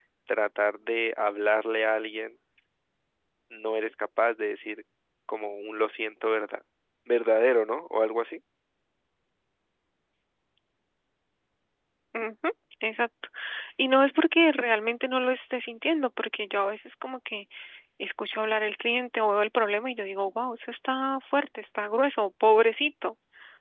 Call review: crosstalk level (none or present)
none